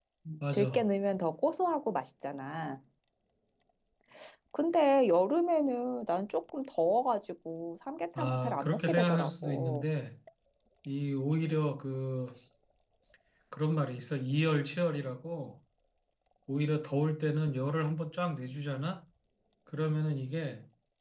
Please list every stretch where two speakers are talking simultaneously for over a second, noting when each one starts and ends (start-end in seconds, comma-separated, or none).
8.2-9.9